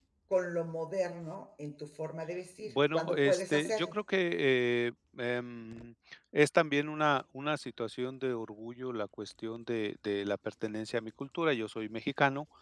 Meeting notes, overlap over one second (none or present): present